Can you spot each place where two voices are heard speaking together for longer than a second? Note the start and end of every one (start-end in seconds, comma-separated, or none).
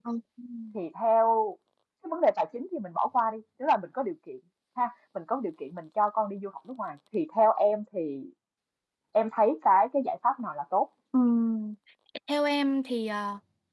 none